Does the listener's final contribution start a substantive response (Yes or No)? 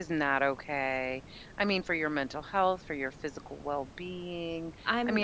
No